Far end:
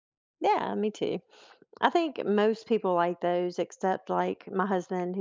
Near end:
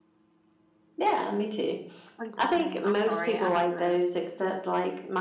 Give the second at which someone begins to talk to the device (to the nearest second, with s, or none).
2 s